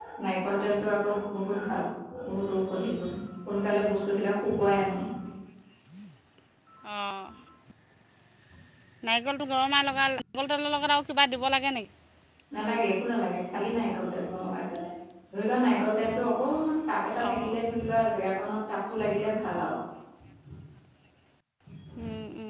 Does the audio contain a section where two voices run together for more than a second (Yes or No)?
No